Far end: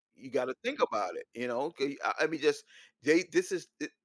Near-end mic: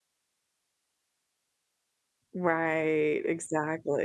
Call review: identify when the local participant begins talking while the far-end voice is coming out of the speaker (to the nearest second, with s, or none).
2 s